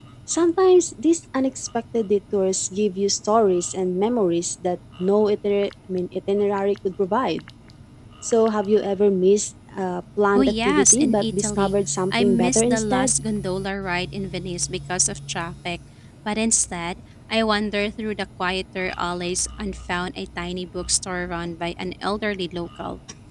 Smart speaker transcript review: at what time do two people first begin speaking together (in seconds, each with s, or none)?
10.4 s